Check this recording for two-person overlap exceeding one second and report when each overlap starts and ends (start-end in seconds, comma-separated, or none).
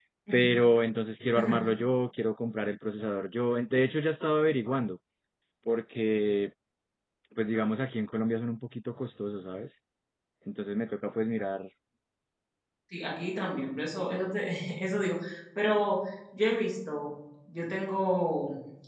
none